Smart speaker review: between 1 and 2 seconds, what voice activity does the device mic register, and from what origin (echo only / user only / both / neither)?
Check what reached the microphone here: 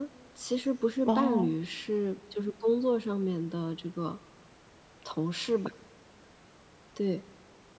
both